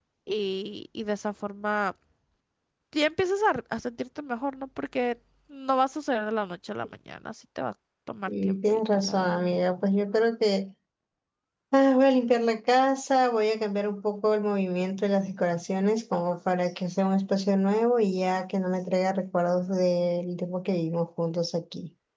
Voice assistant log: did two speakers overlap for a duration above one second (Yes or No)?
Yes